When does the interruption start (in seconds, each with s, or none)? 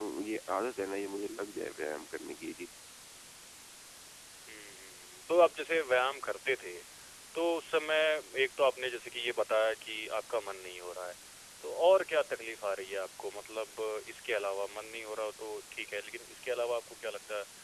none